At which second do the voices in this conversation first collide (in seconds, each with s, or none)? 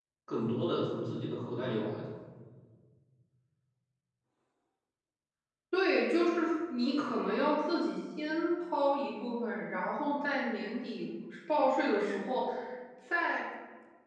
none